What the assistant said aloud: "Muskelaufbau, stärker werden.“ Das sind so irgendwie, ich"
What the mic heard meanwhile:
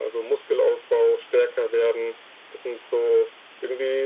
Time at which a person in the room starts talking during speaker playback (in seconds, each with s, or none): none